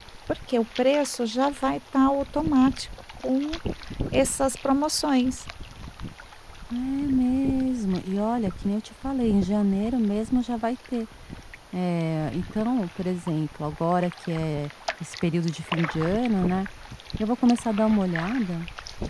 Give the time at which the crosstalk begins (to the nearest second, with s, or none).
none